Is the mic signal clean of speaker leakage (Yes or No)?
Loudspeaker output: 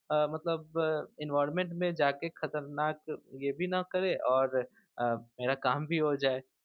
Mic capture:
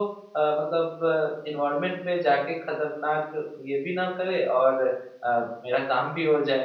No